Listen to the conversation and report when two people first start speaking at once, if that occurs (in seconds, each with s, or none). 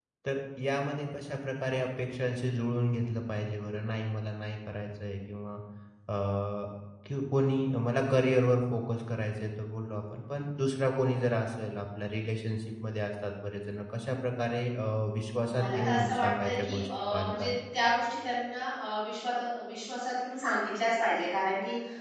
15.4 s